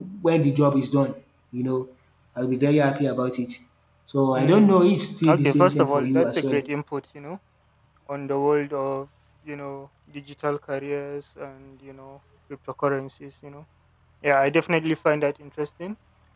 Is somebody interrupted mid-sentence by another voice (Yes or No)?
Yes